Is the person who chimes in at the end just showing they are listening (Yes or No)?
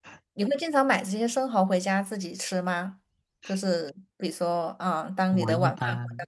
No